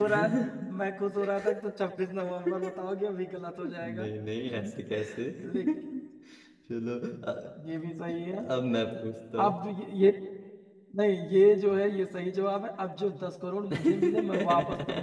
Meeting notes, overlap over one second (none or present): present